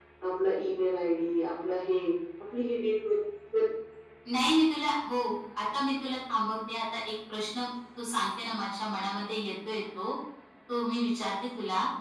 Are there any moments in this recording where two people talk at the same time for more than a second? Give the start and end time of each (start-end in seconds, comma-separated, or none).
none